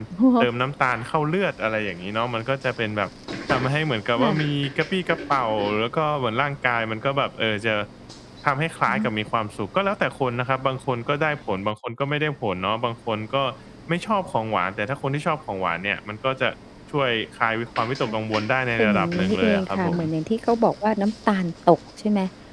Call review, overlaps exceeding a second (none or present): present